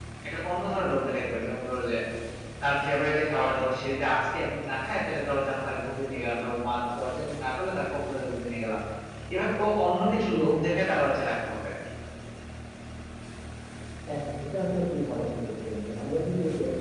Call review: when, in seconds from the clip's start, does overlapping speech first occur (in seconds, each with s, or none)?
none